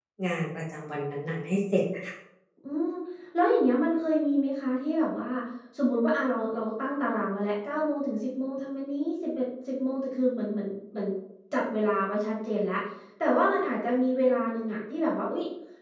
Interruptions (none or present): none